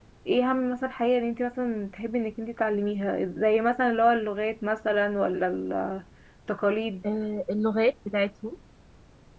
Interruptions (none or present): none